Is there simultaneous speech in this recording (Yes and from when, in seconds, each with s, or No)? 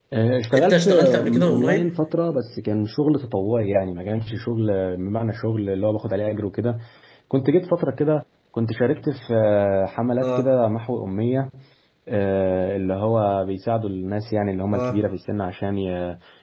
Yes, from 0.5 s